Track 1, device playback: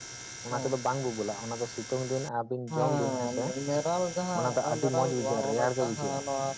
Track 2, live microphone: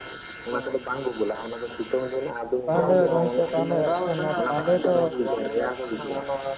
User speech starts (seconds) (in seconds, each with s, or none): 2.6 s